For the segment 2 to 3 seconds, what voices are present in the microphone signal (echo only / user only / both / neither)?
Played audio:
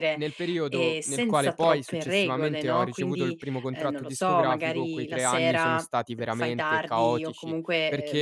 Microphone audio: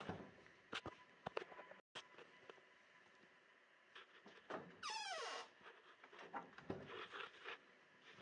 neither